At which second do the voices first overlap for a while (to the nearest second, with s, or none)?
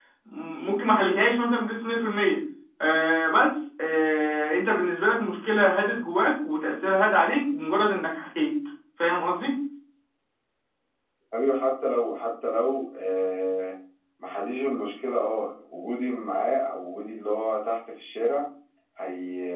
none